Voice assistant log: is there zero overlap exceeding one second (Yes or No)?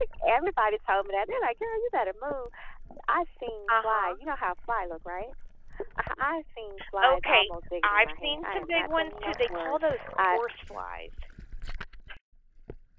No